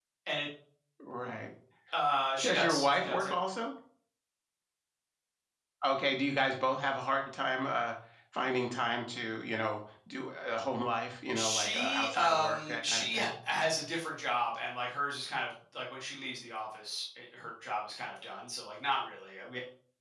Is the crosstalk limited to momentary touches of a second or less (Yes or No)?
No